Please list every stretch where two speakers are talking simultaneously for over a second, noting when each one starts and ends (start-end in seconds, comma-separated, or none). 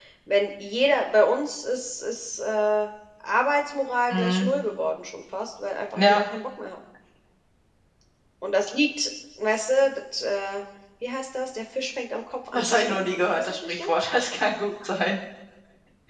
12.5-13.9